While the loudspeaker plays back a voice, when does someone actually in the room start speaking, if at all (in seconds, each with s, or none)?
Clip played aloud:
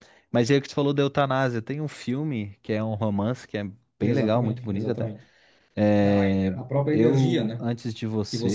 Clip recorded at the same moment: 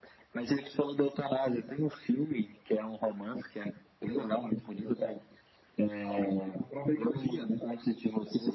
none